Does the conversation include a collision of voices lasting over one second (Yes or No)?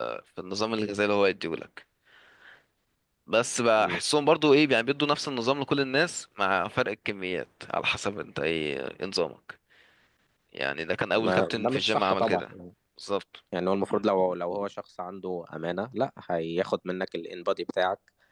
Yes